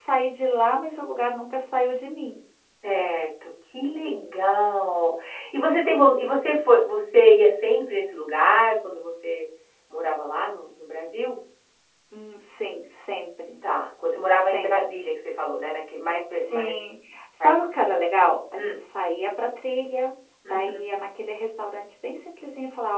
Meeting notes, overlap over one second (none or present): none